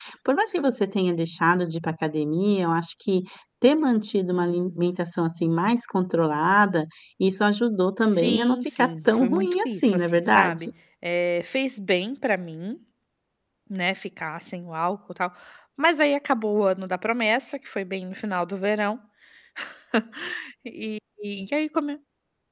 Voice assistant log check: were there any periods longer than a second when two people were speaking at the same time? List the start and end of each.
8.1-10.7

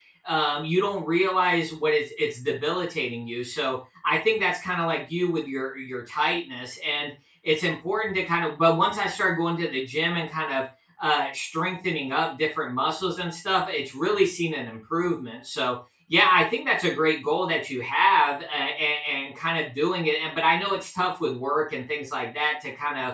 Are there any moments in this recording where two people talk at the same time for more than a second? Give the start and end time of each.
none

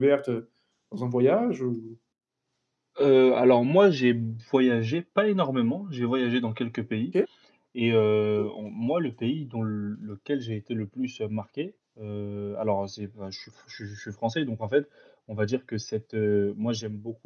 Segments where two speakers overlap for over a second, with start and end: none

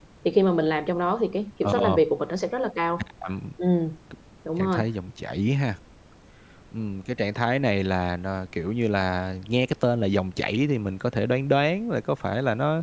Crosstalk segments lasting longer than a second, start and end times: none

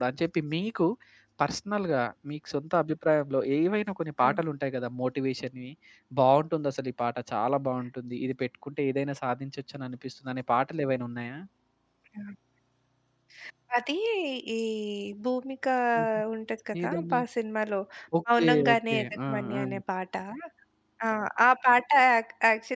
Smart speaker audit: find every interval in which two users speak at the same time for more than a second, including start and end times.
18.3-19.6

